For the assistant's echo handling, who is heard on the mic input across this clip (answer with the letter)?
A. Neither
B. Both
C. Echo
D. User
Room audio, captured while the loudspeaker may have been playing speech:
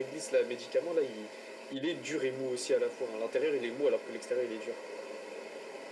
C